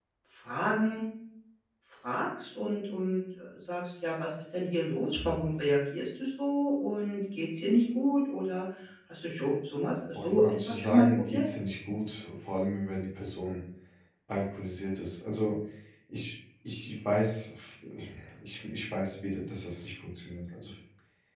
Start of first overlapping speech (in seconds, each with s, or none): 10.1 s